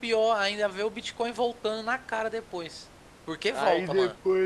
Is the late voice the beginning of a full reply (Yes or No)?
Yes